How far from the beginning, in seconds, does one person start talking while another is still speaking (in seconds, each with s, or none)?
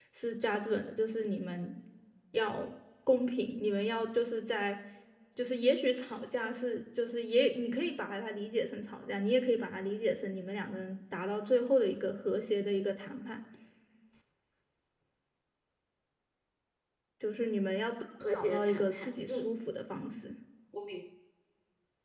18.2 s